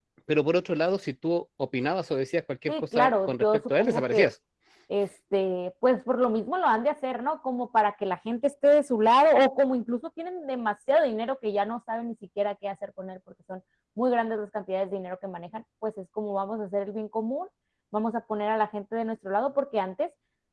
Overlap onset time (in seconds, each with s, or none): 2.7 s